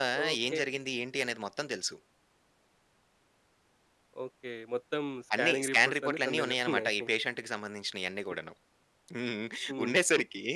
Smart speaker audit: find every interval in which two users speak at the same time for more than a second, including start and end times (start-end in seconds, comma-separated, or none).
5.4-6.9